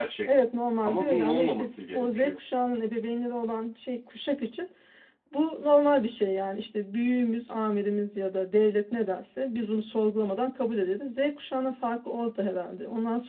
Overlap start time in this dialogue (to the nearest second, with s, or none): 1 s